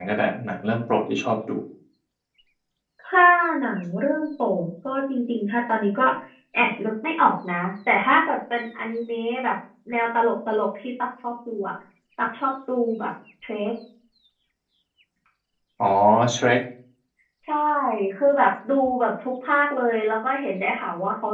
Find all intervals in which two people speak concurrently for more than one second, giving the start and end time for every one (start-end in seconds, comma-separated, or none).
none